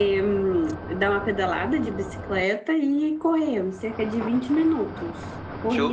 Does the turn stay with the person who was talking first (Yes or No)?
No